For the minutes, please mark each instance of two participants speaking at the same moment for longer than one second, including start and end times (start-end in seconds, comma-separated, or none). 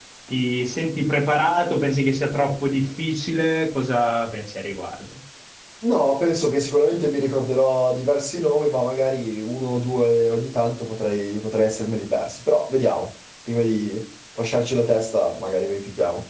none